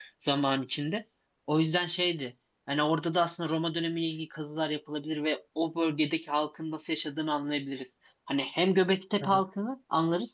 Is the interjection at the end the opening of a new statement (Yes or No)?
No